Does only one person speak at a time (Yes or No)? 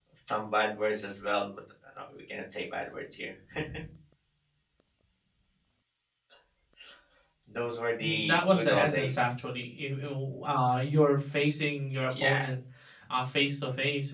No